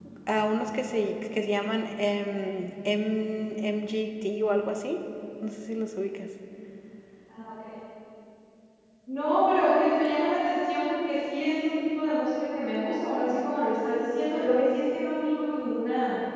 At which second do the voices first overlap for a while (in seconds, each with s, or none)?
none